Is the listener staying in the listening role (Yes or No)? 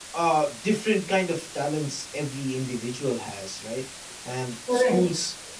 Yes